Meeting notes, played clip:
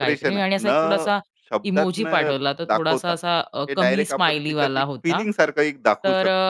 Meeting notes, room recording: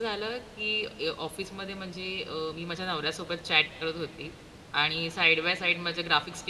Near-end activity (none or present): present